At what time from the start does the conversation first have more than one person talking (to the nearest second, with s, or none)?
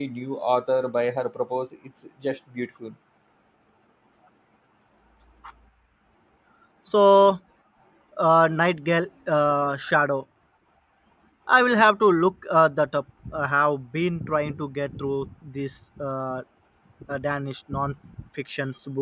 none